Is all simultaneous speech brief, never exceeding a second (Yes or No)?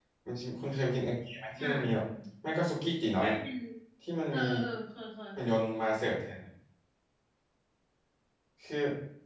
Yes